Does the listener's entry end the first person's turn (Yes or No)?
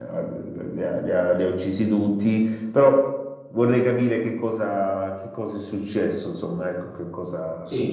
Yes